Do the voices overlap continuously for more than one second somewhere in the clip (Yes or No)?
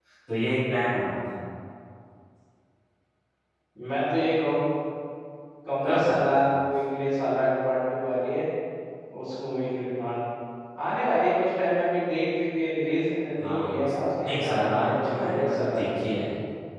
Yes